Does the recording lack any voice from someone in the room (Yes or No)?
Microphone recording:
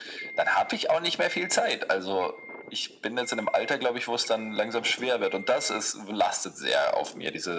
Yes